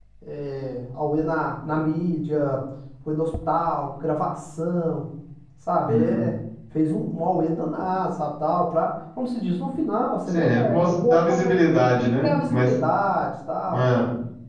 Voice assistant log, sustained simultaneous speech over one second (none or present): present